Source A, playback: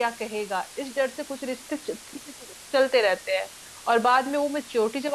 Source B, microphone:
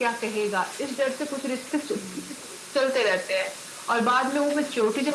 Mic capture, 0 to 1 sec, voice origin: echo only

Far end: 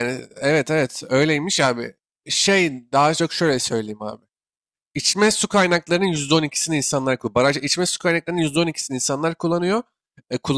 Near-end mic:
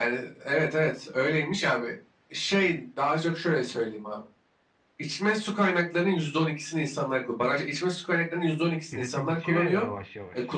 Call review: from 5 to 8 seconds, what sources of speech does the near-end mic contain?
echo only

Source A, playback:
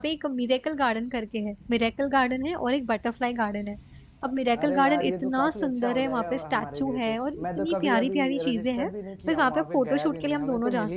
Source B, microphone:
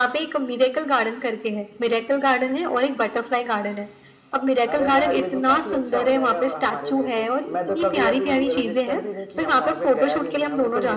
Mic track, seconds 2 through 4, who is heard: echo only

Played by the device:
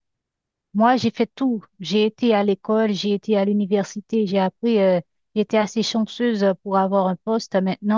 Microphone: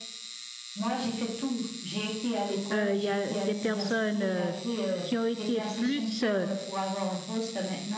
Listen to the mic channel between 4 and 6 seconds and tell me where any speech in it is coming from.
both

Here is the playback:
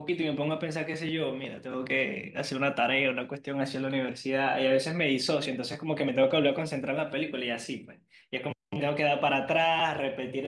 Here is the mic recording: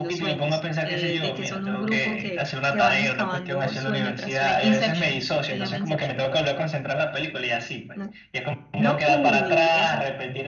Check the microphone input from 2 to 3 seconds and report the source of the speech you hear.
both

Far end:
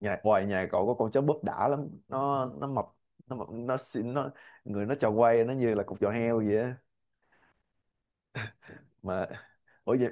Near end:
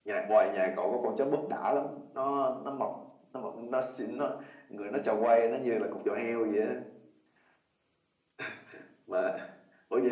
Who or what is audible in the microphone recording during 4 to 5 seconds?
echo only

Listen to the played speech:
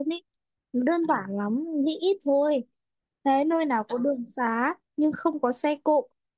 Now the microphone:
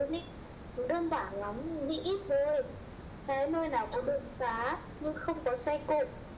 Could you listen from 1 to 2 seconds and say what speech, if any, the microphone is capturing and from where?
echo only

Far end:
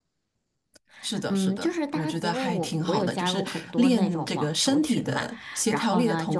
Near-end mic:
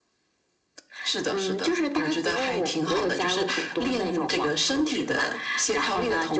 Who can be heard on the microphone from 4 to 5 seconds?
echo only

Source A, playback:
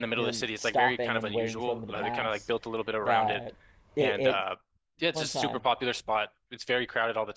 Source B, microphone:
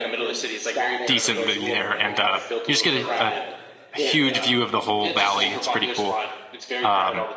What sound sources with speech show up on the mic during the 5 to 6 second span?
both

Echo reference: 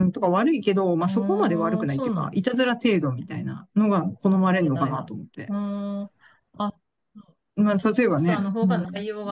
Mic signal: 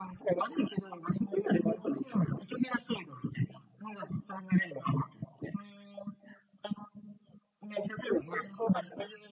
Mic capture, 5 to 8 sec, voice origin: echo only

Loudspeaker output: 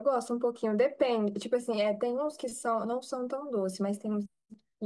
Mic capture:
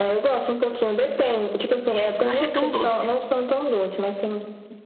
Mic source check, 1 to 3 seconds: both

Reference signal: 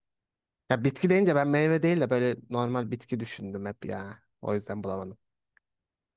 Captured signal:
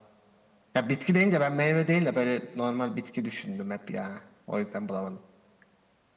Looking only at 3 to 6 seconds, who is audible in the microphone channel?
echo only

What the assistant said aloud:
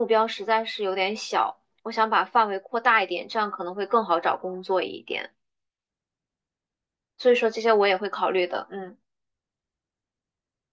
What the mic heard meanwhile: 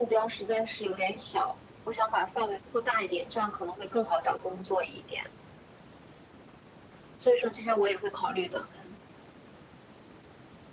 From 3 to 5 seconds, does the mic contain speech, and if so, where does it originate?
echo only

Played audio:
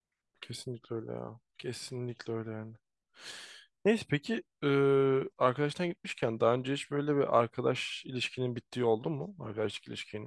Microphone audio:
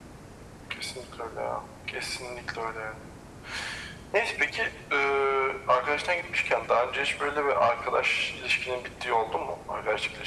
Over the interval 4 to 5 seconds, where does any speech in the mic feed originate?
echo only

